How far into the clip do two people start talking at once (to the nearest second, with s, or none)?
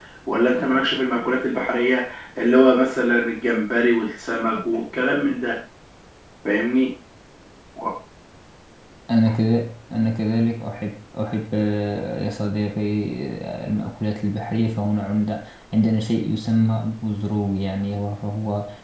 none